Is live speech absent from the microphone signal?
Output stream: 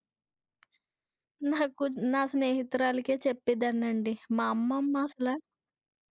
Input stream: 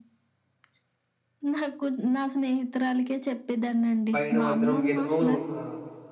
No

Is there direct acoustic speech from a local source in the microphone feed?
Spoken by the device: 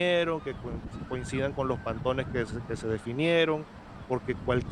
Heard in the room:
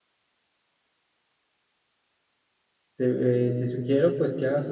Yes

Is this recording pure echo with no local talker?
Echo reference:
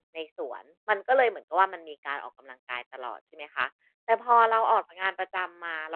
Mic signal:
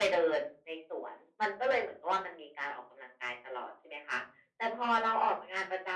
Yes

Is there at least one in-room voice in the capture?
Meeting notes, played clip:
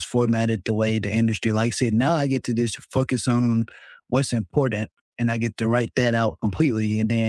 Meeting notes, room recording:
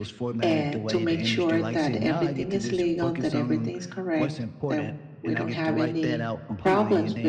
Yes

